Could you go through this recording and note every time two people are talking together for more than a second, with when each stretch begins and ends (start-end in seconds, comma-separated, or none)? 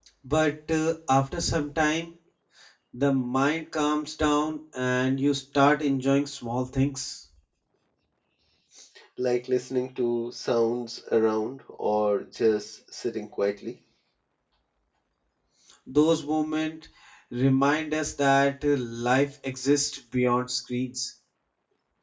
none